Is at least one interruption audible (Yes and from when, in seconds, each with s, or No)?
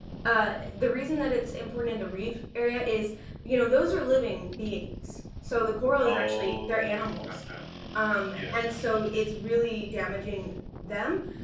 Yes, from 6.0 s